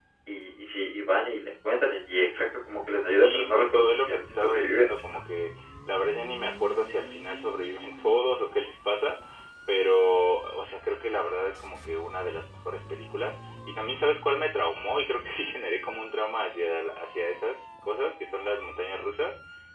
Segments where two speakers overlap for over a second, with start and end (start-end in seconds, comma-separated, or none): 3.1-5.0